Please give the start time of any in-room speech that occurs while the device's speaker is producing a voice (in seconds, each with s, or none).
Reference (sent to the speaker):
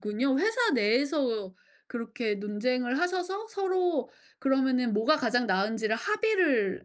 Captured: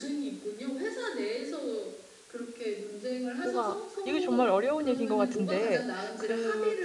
3.4 s